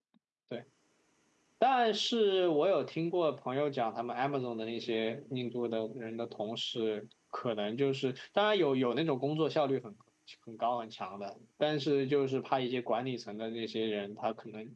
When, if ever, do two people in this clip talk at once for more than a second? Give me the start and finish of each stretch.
none

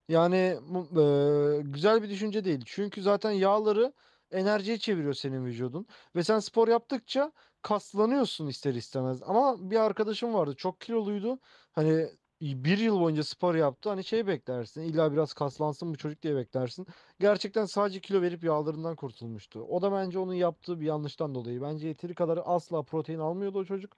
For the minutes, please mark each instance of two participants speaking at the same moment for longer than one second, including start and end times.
none

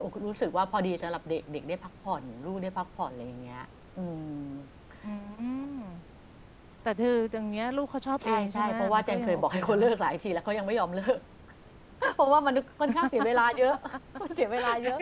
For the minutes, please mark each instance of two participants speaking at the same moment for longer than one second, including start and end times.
8.2-9.8

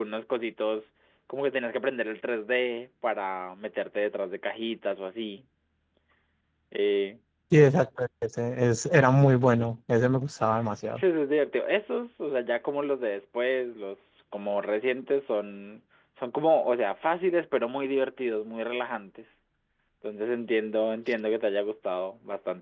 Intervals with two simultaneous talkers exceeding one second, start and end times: none

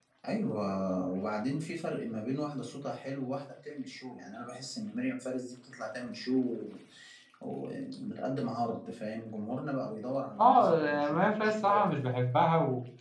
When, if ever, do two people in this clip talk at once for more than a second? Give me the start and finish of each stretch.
10.4-12.0

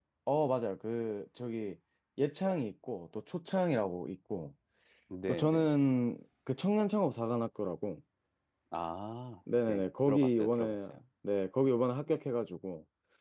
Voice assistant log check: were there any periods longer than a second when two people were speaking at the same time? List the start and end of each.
9.6-11.0

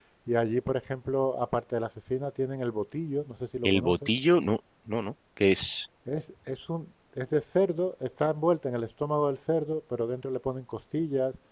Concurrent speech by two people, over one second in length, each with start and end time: none

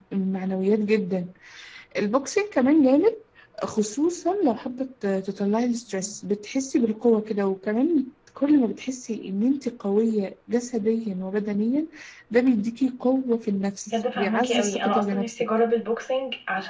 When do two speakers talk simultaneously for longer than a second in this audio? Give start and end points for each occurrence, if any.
13.9-15.5

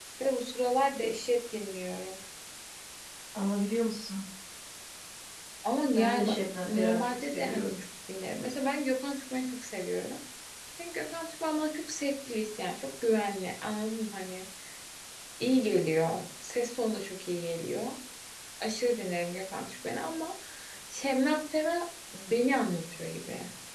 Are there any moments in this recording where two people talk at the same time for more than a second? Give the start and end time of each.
6.0-7.7

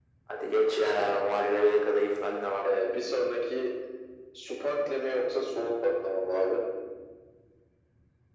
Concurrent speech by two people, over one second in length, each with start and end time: none

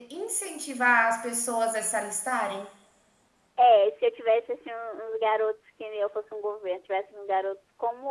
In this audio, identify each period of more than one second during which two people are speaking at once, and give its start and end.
none

